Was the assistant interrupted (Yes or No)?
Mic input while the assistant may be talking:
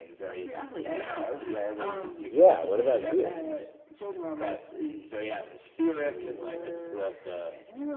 Yes